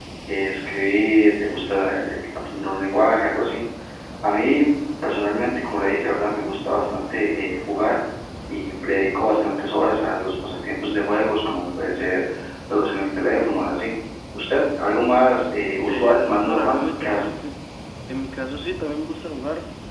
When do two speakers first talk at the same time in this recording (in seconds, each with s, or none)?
15.9 s